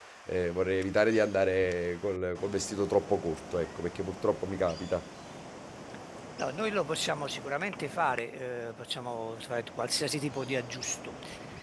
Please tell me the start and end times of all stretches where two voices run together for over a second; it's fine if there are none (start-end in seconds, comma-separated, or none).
none